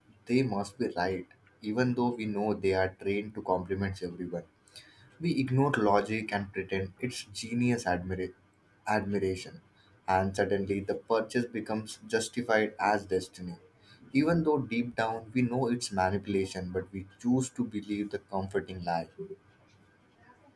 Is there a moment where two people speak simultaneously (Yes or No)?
No